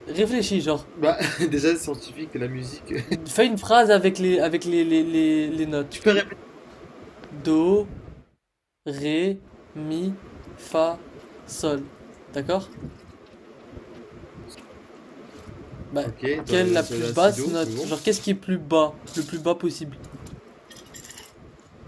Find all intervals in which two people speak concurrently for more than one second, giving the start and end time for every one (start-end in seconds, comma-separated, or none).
16.5-17.9